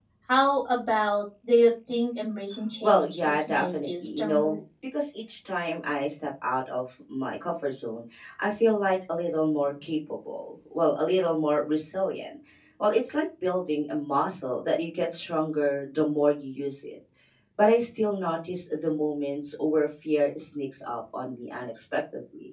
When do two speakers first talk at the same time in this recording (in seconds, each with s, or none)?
2.8 s